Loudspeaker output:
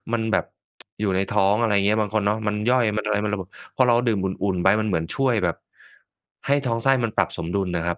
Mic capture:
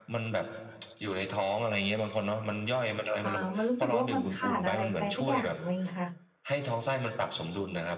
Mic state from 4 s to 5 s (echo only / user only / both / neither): both